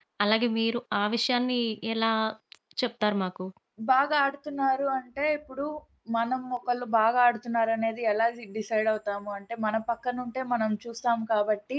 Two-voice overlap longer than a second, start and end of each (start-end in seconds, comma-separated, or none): none